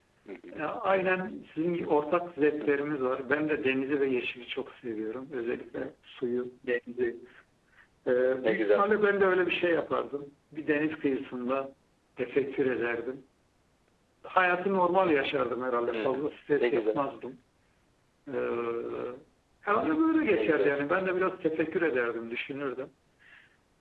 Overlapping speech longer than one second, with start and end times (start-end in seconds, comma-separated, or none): none